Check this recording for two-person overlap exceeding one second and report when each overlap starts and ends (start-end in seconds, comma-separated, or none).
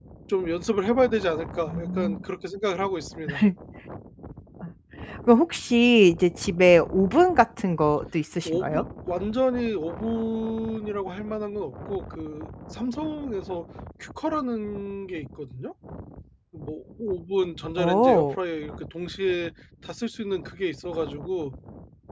none